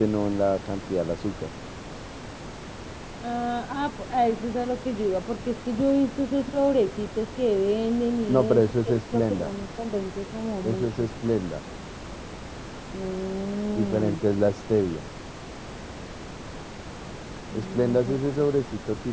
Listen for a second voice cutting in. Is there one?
Yes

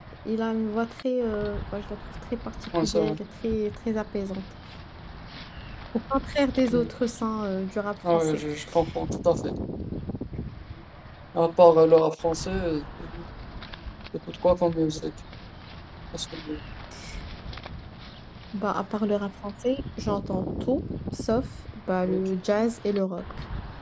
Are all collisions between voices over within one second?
Yes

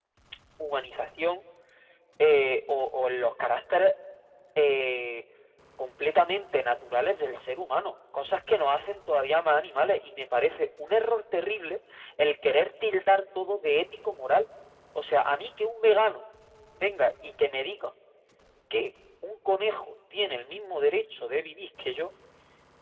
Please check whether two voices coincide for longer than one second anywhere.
No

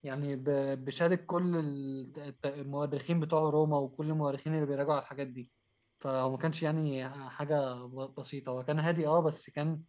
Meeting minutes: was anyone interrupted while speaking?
No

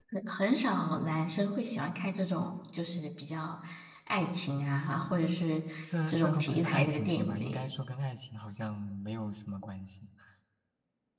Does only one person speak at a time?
No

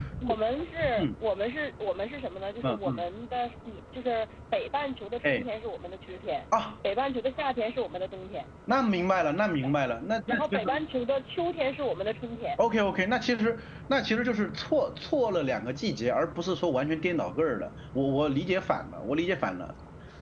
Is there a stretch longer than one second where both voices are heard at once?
No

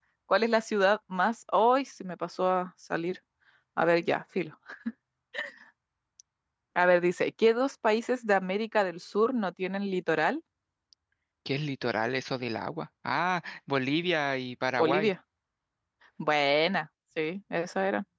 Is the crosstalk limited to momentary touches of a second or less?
Yes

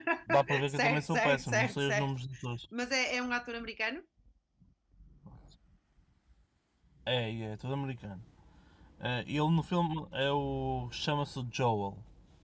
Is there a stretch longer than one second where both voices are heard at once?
Yes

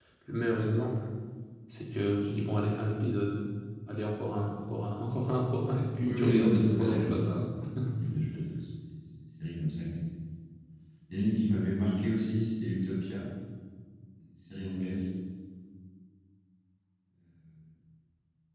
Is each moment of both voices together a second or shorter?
No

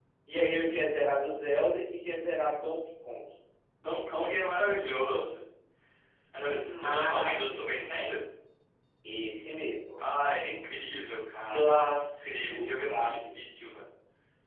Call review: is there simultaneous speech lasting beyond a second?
Yes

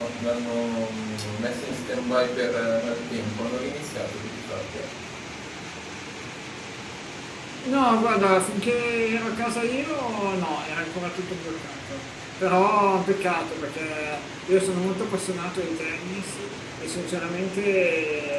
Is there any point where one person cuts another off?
No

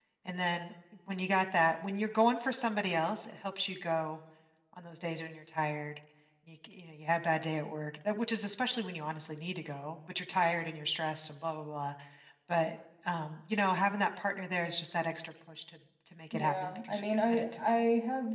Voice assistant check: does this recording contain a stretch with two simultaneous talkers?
Yes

